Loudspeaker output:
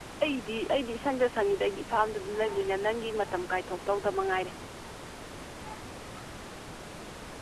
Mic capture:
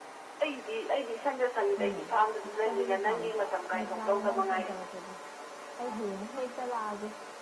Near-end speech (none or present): present